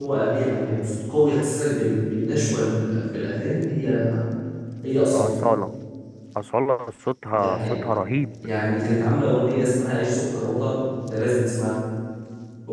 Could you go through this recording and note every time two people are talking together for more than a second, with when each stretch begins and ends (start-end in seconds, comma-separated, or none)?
none